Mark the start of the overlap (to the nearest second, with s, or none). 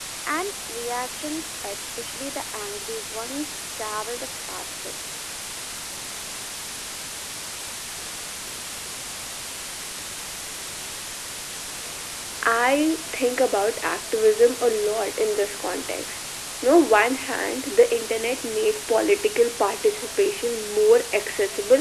none